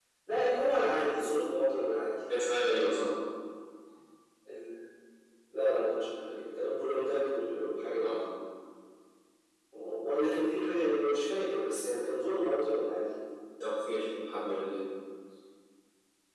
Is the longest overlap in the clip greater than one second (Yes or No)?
No